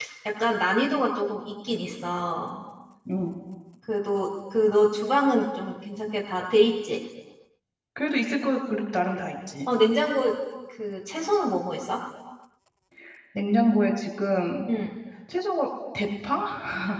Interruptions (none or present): none